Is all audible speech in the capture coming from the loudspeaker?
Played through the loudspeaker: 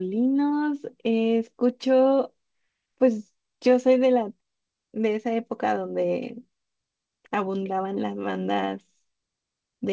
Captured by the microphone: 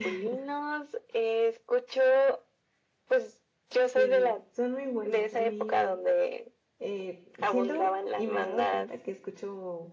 No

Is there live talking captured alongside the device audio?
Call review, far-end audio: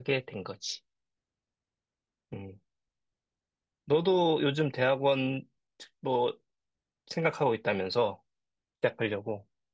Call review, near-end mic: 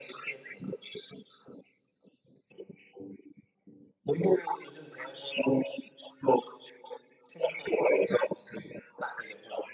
No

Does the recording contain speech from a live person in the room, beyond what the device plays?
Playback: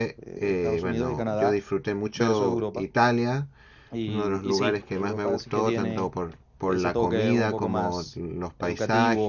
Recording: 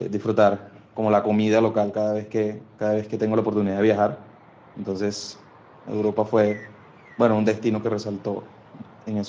Yes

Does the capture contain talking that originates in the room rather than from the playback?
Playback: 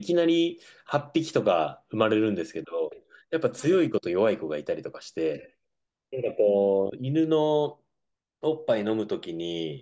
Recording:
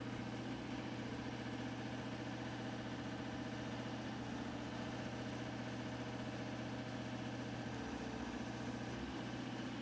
No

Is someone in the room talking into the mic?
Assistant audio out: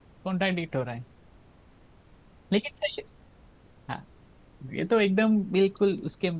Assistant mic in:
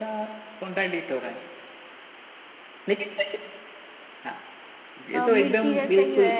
Yes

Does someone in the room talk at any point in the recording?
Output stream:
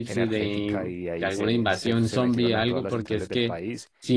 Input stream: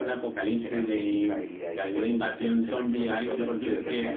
Yes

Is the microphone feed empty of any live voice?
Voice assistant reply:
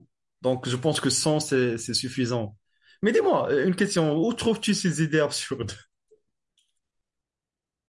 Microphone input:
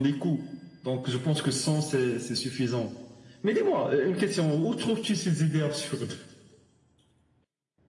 Yes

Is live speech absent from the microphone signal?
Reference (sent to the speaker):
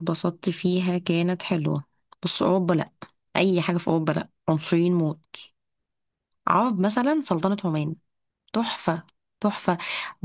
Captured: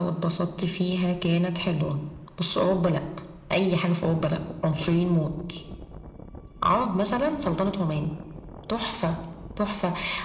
Yes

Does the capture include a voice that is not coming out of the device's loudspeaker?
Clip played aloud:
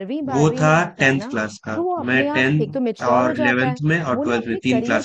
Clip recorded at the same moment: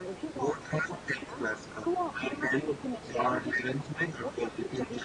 No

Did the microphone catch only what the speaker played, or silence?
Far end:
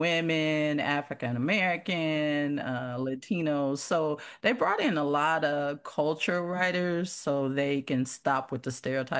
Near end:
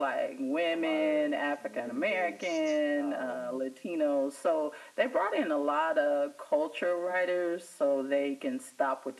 No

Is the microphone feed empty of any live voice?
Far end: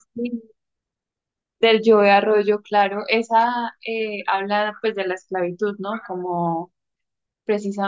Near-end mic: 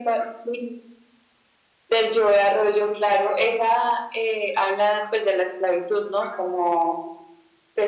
Yes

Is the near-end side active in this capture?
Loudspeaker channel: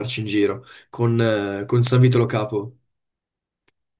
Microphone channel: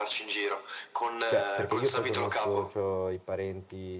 Yes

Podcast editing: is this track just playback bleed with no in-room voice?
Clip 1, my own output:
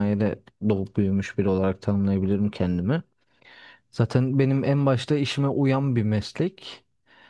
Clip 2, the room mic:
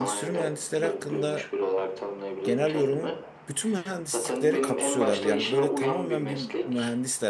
No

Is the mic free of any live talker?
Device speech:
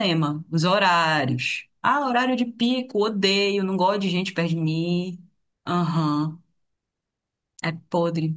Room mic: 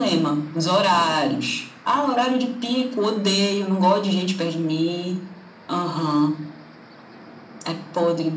Yes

